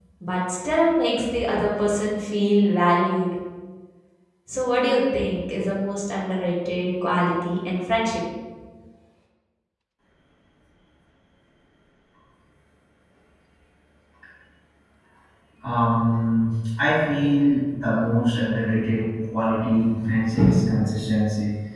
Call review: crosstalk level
none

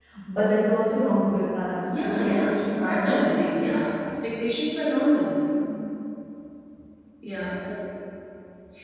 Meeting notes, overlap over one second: present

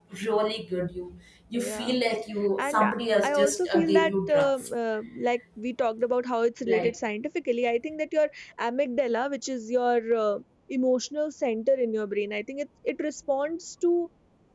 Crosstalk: present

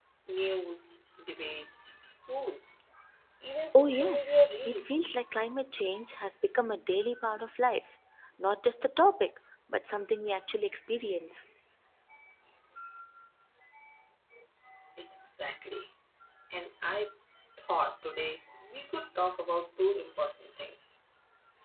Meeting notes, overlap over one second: present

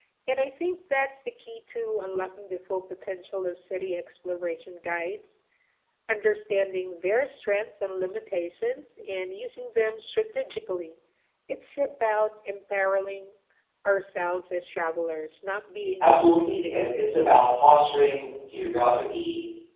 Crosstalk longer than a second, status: present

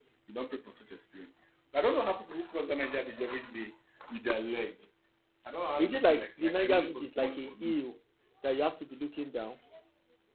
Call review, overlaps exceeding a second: present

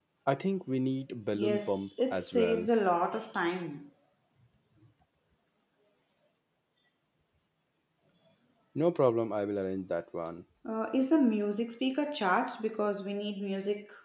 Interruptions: present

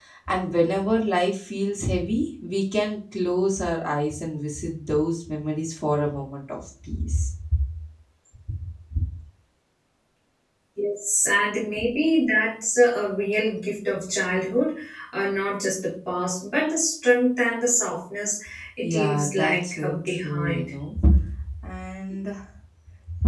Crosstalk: present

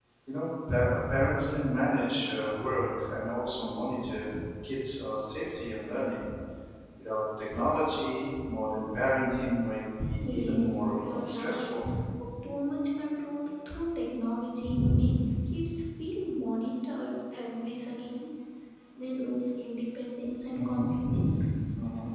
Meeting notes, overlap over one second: present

